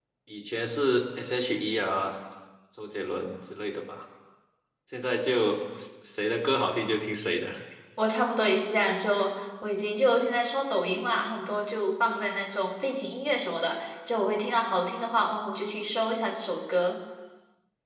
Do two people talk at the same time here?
No

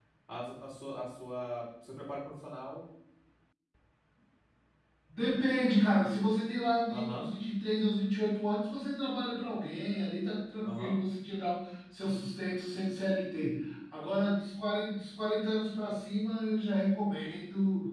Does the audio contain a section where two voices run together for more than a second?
No

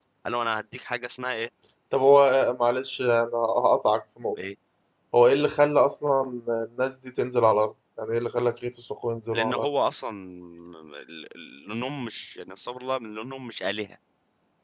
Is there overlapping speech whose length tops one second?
No

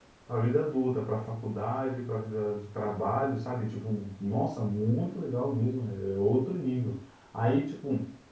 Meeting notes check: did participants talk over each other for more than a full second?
No

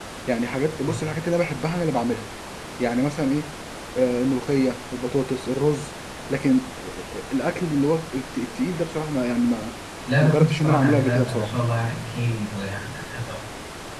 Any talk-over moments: Yes, from 10.2 s

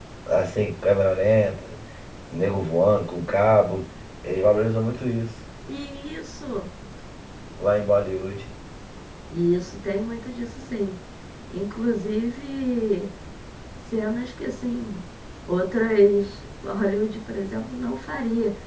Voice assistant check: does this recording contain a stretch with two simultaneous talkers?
No

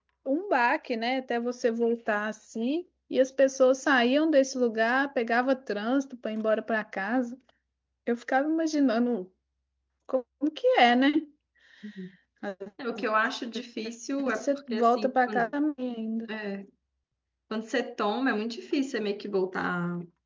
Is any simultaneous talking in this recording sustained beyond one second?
Yes, from 14.2 s

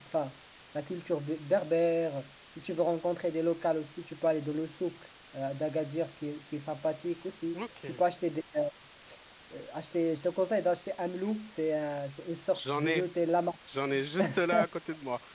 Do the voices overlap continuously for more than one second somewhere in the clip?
No

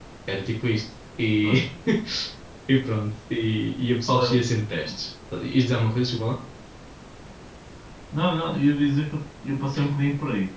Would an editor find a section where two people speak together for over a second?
No

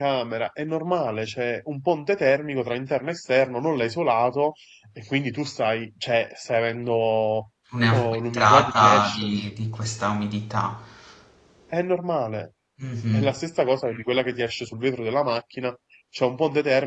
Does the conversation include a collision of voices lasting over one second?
Yes, from 7.9 s

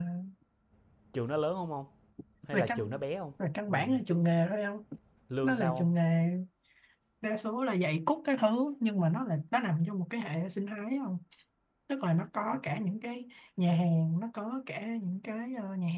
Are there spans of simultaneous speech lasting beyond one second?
No

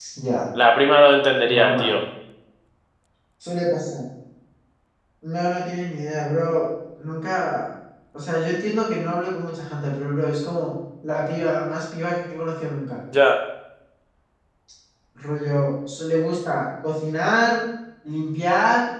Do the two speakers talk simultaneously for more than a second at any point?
No

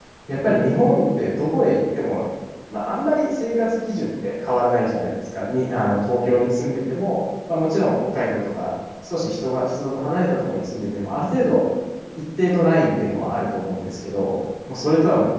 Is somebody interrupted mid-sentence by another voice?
No

